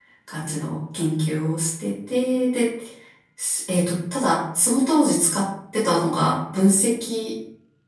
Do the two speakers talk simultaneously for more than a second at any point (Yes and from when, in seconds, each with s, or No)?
No